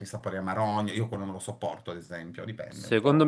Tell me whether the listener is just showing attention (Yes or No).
No